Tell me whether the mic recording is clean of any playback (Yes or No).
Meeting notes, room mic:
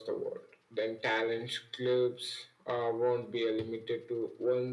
No